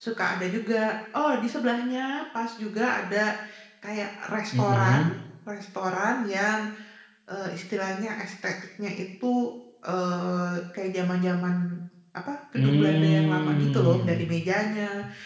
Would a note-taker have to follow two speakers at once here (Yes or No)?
Yes